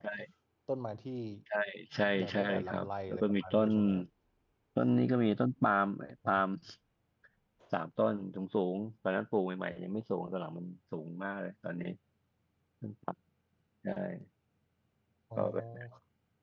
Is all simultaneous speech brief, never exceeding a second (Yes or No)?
No